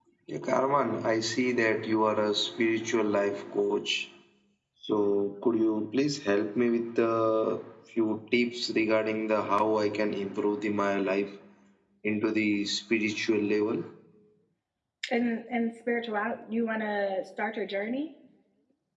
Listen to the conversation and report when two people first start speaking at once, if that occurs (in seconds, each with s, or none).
none